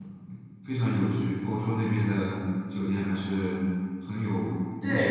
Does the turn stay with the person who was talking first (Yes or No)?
No